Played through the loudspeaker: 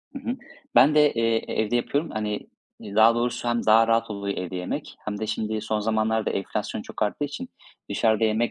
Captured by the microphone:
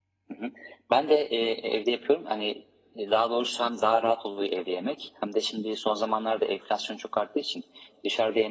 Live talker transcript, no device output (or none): none